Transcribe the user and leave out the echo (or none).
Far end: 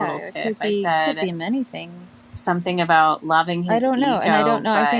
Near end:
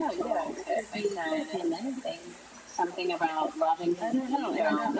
none